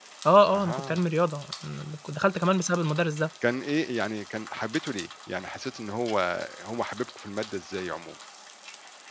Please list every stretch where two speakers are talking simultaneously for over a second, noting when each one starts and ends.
none

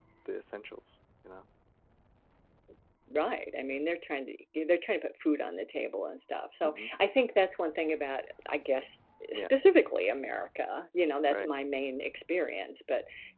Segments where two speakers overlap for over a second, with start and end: none

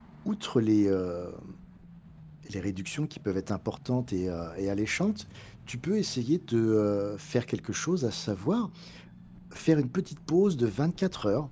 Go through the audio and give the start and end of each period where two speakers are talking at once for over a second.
none

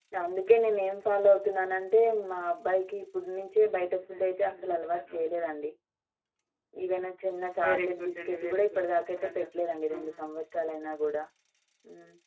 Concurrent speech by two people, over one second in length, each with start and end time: 3.7-5.2, 7.6-10.2

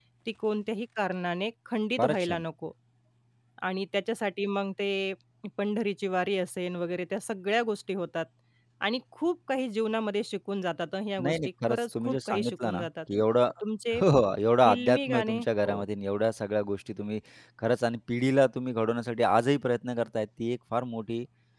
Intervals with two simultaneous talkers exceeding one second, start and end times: 11.2-12.9, 14.6-15.8

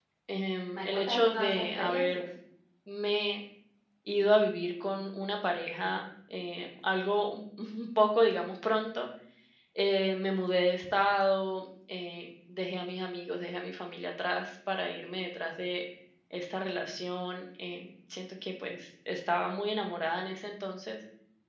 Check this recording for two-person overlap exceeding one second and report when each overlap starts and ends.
0.7-2.2

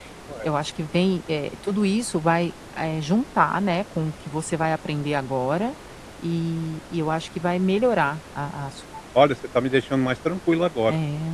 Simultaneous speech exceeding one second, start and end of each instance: none

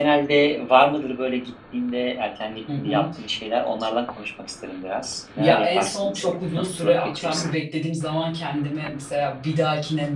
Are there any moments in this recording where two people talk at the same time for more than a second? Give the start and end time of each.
5.4-7.4

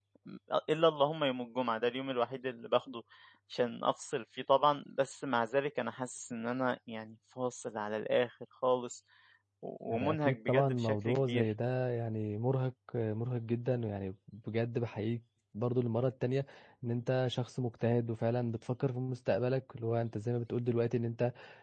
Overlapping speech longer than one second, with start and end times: 9.9-11.5

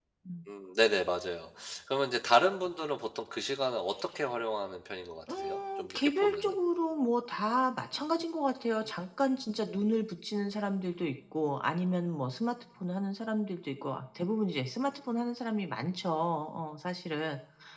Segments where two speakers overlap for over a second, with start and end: 5.3-6.5

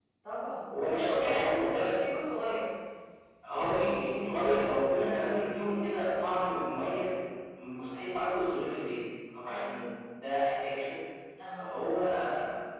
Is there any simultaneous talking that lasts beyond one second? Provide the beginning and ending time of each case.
0.7-1.9

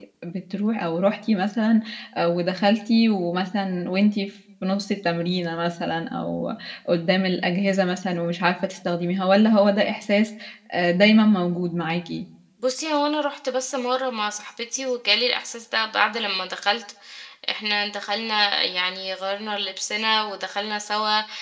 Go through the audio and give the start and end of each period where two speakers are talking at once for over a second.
none

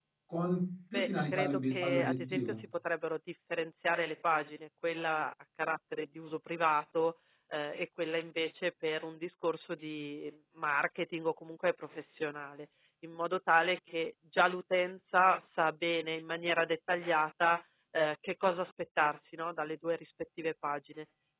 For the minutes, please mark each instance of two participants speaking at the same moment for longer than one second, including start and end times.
0.9-2.6

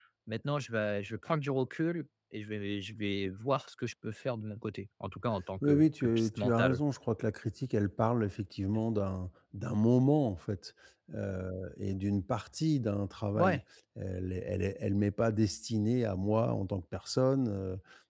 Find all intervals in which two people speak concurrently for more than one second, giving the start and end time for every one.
5.6-6.8

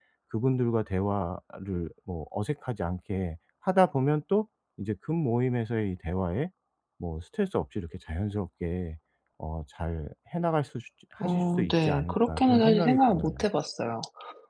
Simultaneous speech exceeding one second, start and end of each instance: 11.2-13.4

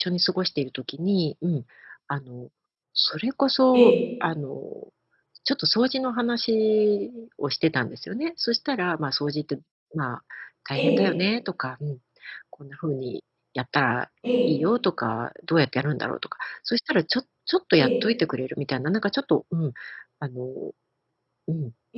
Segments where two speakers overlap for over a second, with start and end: none

